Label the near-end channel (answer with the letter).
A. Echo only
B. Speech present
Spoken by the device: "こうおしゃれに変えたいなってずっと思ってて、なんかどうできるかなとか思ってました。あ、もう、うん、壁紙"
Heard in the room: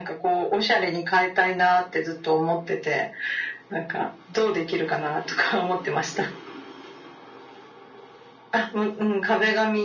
A